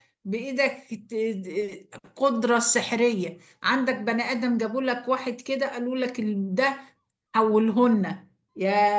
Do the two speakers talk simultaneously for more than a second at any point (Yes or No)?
No